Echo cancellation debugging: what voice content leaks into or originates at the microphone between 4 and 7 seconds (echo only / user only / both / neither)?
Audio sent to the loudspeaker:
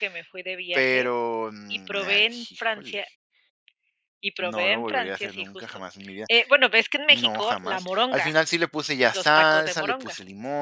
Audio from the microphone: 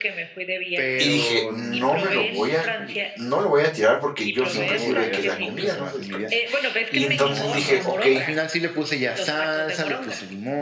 both